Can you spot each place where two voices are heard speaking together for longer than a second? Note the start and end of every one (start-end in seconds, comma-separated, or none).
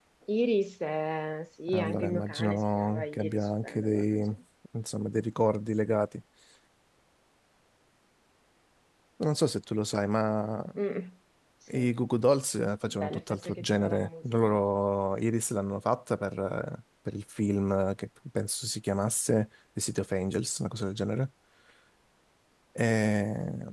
1.7-4.2, 12.9-14.6